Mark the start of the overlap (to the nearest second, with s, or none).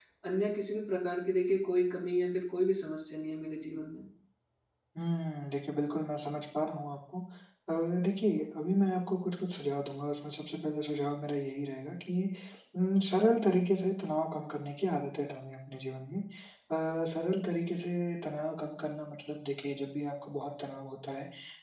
none